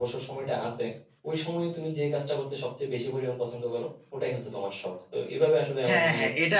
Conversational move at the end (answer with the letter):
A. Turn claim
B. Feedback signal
A